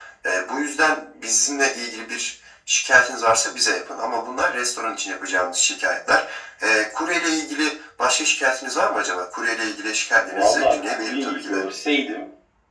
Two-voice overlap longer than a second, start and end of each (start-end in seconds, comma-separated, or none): 10.2-11.6